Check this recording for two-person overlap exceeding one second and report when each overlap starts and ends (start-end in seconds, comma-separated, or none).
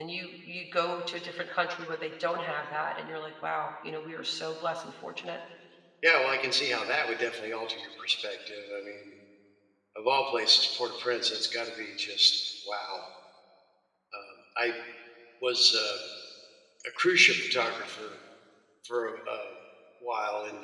none